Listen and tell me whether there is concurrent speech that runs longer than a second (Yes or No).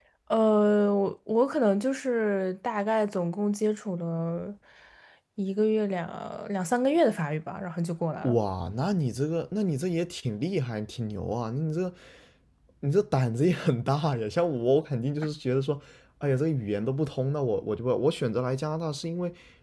No